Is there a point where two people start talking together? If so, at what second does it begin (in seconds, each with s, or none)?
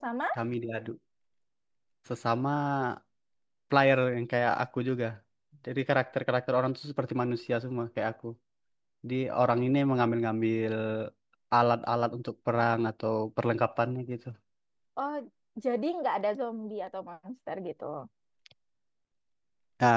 none